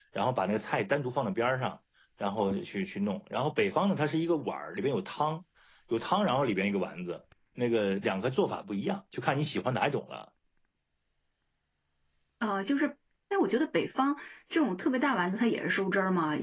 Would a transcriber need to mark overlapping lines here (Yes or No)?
No